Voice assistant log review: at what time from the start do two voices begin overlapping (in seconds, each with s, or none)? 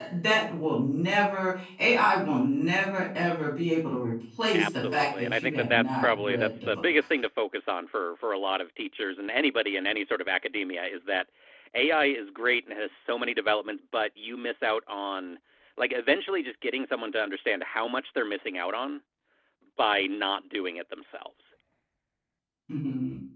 4.5 s